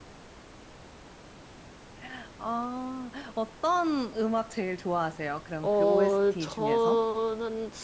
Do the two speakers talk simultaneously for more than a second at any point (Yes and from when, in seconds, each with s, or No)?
Yes, from 5.6 s